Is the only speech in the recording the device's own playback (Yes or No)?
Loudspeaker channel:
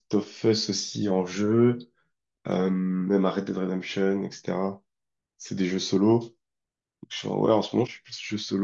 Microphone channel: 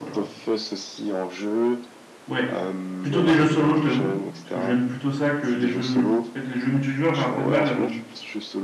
No